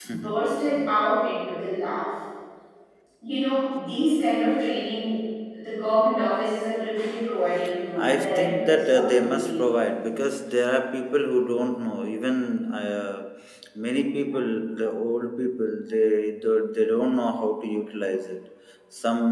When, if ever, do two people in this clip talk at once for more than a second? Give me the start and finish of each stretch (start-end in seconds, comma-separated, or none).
8.0-9.6